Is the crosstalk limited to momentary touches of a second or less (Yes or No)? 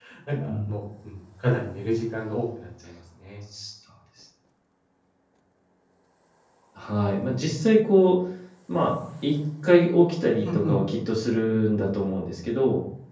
Yes